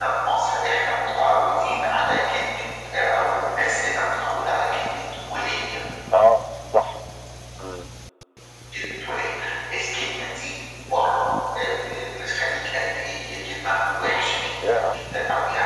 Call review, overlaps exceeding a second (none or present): none